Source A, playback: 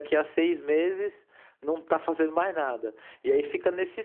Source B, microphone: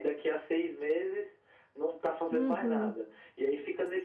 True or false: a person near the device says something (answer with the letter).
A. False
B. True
B